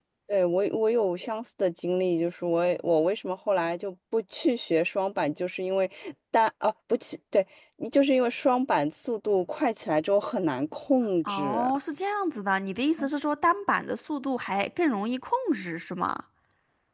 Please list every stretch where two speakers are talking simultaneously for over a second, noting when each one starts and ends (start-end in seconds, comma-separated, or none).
none